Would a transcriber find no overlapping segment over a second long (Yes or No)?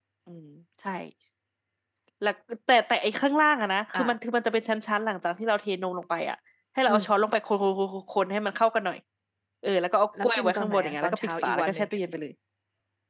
No